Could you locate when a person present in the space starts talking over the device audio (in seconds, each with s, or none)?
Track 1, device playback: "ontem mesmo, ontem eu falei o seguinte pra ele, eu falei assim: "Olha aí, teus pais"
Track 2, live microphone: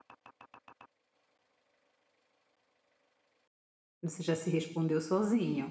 4.0 s